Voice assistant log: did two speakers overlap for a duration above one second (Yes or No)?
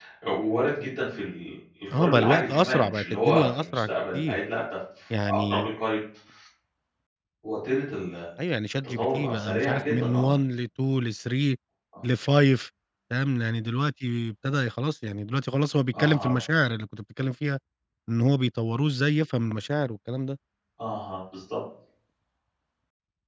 Yes